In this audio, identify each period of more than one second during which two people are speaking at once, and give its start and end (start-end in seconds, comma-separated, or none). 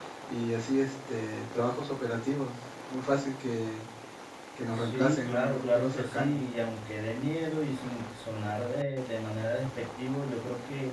4.7-6.4